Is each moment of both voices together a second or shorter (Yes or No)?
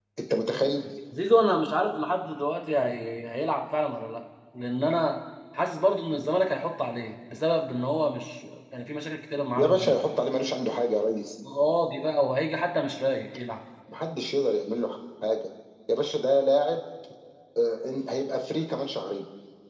Yes